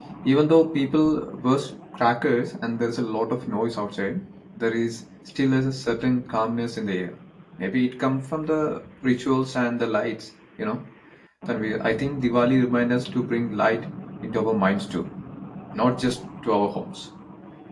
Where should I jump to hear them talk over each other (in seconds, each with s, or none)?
none